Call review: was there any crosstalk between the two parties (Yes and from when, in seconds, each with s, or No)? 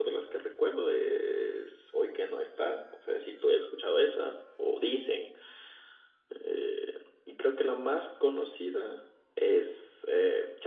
No